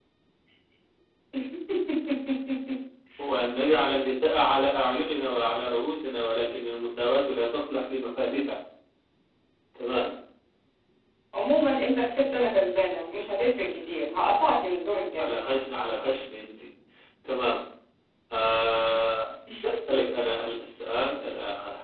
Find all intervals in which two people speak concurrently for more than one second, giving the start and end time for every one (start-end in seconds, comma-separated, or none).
none